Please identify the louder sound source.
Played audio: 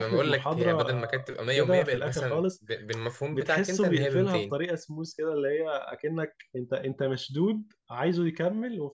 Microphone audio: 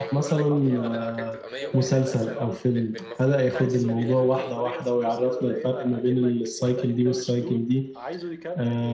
user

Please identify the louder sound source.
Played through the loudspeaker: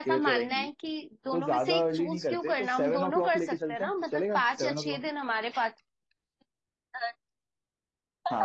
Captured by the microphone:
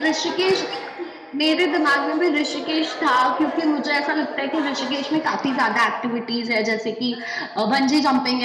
user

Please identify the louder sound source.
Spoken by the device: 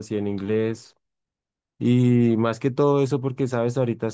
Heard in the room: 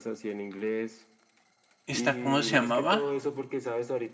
user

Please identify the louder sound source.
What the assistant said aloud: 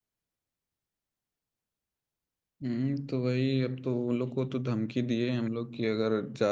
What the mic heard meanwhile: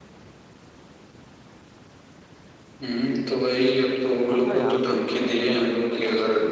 echo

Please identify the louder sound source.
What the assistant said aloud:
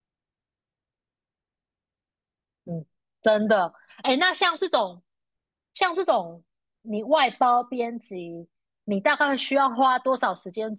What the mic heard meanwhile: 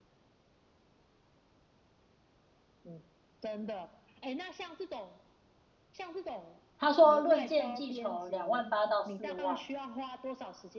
user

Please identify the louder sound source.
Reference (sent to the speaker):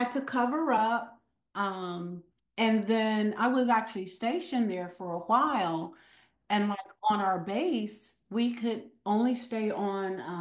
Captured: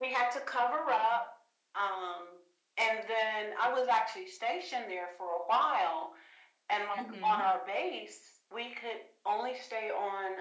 echo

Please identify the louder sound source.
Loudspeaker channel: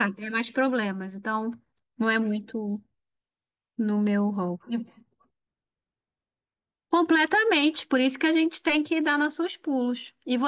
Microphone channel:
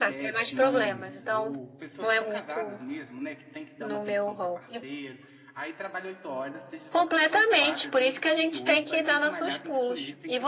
echo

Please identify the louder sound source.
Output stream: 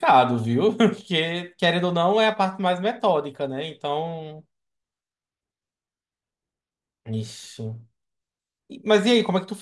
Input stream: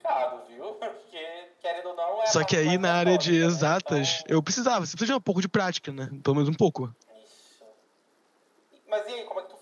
user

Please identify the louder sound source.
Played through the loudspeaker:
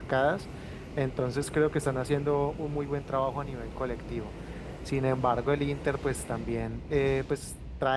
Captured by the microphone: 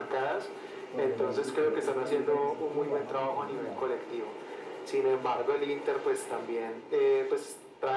echo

